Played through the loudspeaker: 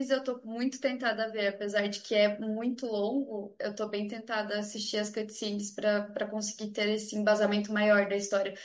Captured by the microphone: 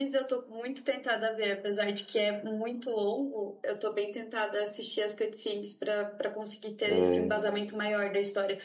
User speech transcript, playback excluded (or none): É.